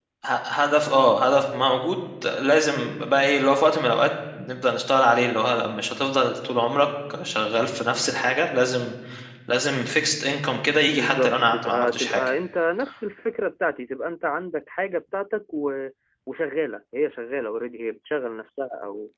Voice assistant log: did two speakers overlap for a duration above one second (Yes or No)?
Yes